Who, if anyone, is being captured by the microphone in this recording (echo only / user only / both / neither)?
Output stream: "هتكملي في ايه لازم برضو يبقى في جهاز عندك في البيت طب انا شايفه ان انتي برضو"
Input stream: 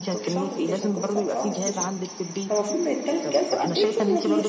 both